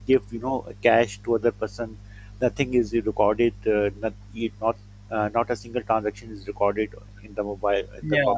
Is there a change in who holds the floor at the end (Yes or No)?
Yes